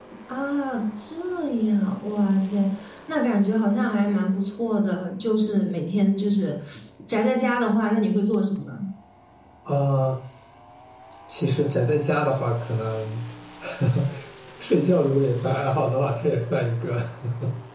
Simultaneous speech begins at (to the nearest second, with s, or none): none